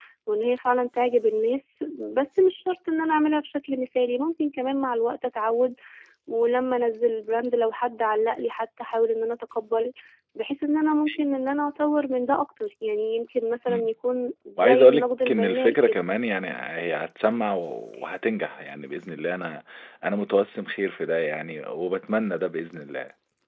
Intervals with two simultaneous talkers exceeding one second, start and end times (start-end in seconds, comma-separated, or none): 14.6-16.0